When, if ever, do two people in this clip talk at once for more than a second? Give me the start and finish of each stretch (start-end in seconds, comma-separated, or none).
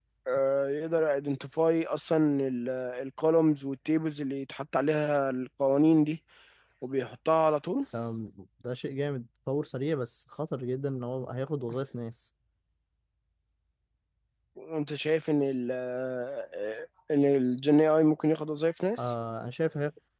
none